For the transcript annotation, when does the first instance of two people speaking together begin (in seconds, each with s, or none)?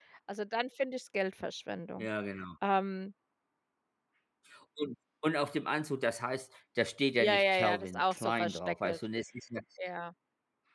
7.2 s